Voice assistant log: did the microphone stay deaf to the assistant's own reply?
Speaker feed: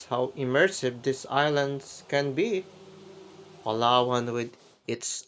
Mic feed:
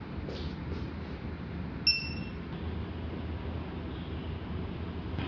Yes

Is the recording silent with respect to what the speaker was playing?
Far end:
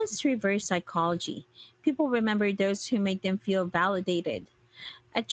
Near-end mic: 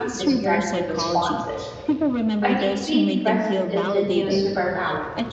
No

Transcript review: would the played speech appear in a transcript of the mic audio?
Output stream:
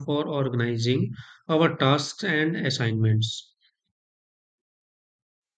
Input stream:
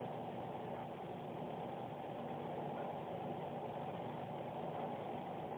No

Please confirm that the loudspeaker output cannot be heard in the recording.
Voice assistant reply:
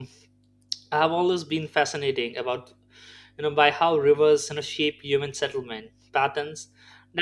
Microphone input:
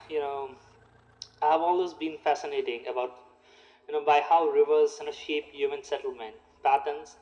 No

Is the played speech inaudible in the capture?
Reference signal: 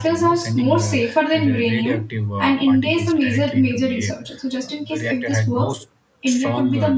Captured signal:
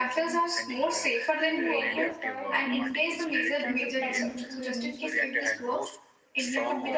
No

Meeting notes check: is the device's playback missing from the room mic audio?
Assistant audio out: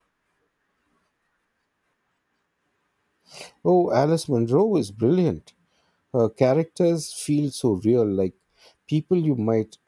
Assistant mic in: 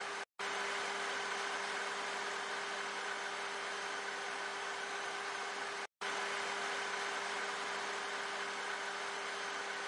Yes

